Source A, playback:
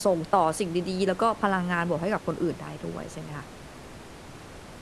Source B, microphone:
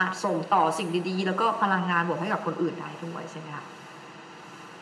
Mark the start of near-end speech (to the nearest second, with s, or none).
none